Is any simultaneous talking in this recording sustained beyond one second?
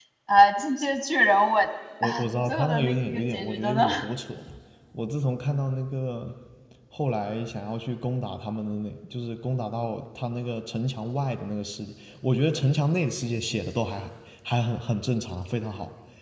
Yes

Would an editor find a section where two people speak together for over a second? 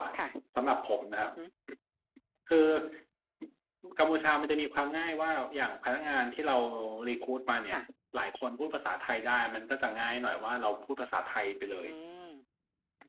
No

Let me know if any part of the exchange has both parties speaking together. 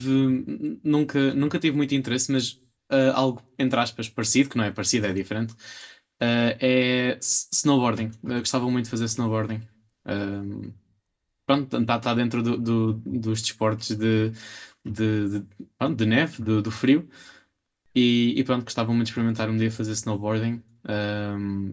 No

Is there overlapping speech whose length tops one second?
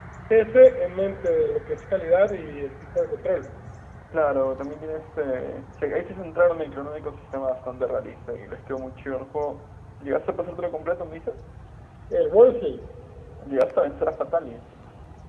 No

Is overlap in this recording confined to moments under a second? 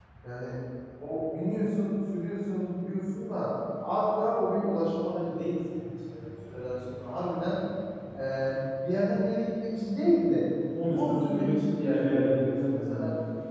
No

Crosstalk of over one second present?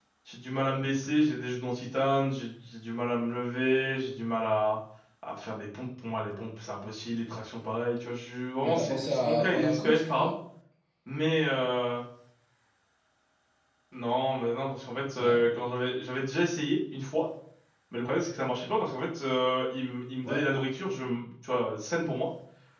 Yes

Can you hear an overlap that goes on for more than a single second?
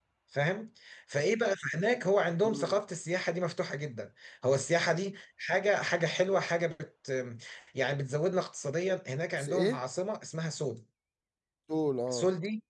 No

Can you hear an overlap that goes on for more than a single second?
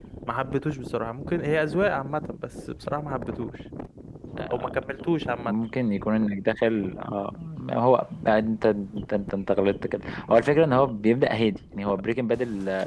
No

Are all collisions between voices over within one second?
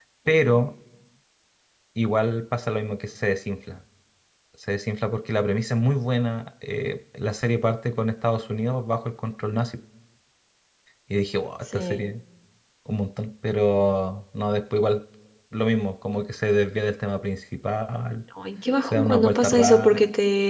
No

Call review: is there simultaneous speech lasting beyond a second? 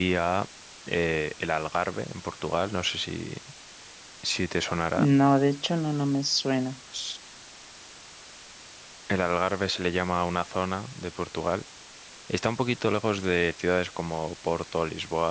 No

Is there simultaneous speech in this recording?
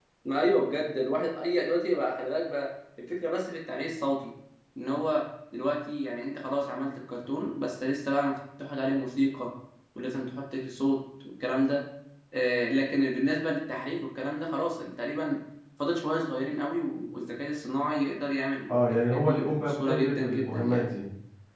Yes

